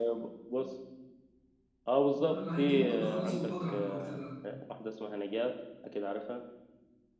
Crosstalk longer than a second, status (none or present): present